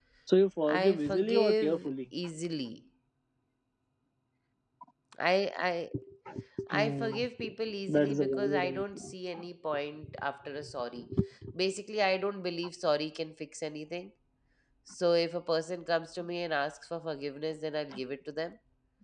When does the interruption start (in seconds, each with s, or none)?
0.6 s